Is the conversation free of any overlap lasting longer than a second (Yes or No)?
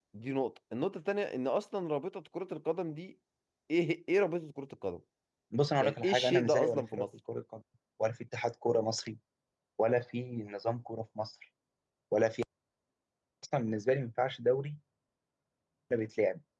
No